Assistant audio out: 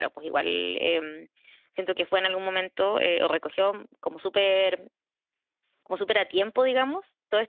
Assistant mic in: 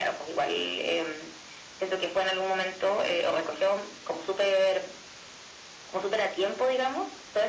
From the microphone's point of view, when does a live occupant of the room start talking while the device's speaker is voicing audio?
none

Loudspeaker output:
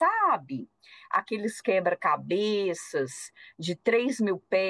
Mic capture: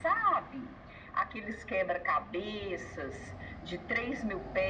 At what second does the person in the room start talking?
none

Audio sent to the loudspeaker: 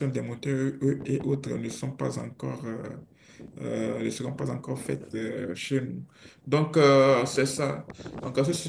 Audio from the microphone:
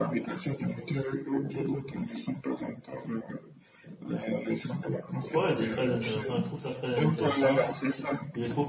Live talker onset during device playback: 5 s

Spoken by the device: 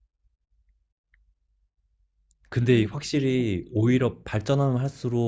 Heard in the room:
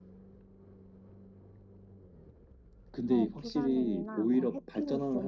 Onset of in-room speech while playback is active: 3 s

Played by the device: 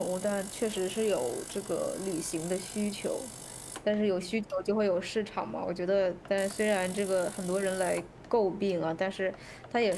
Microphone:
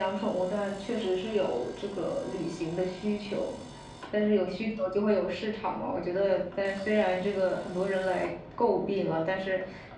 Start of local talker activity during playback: none

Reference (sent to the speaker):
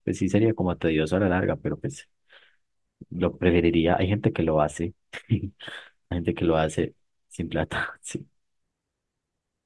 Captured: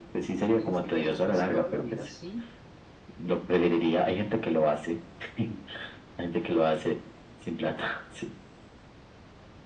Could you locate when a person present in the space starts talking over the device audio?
1 s

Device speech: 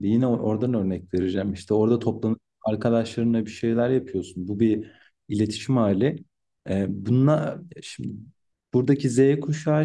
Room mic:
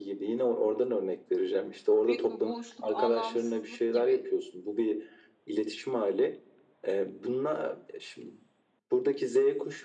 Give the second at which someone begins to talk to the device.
2 s

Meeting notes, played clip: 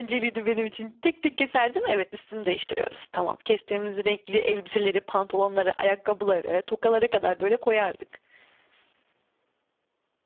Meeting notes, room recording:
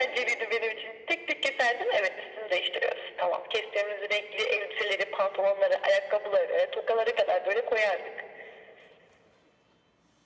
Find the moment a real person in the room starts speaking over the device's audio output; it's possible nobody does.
none

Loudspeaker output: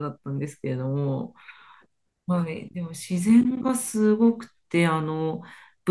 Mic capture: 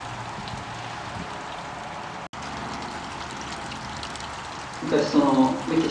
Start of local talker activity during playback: 5 s

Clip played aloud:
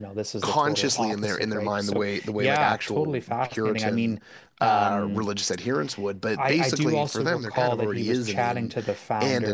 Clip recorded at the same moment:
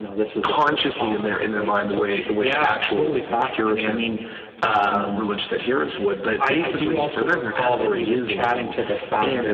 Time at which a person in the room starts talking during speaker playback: none

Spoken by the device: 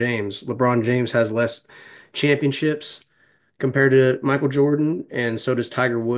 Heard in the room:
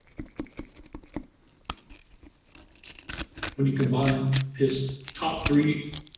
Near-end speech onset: 4 s

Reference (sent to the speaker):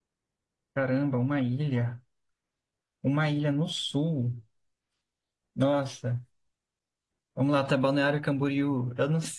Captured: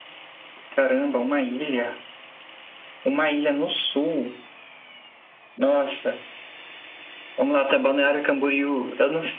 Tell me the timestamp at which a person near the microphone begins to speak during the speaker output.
none

